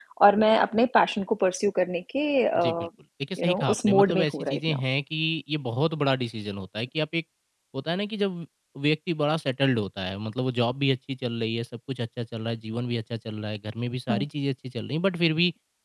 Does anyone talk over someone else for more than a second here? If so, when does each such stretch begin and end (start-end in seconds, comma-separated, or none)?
3.4-4.8